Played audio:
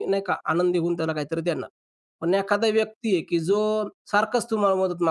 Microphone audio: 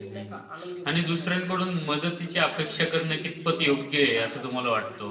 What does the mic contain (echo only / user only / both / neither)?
both